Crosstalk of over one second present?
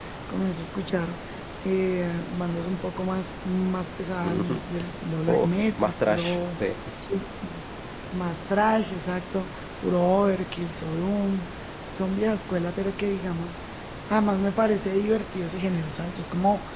Yes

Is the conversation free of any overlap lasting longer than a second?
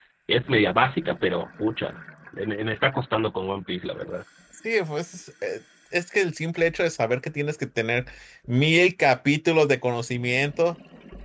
Yes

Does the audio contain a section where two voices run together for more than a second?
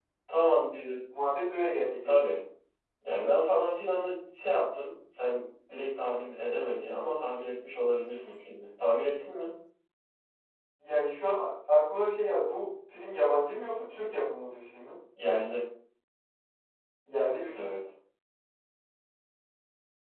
No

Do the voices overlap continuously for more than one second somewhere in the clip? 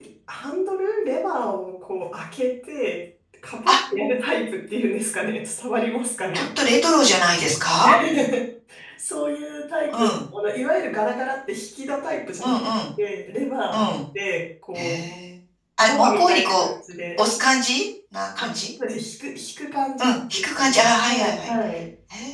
Yes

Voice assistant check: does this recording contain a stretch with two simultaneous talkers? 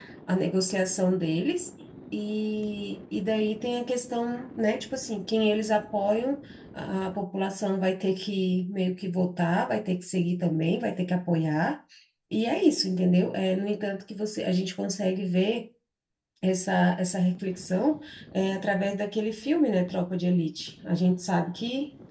No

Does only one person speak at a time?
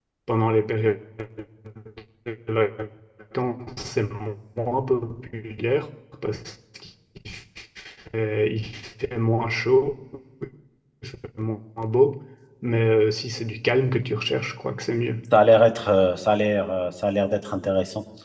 Yes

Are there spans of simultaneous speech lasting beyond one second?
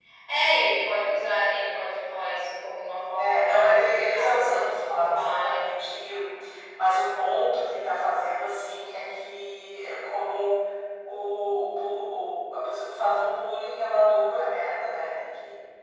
Yes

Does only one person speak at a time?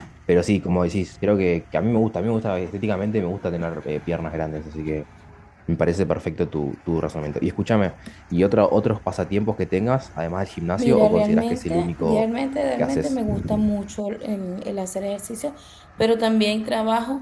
No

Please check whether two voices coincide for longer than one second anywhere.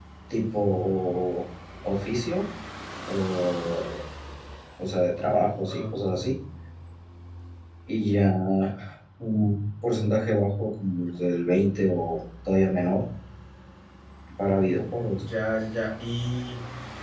No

